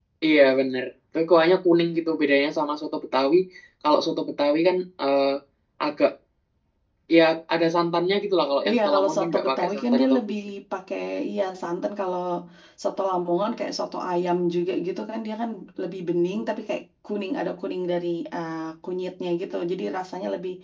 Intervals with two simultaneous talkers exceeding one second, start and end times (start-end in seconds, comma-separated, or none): 8.7-10.2